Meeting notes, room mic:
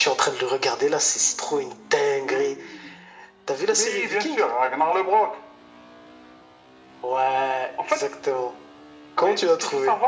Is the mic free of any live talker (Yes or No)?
Yes